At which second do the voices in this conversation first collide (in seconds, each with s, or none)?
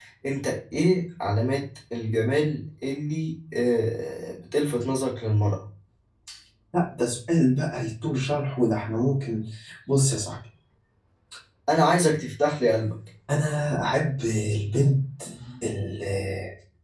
none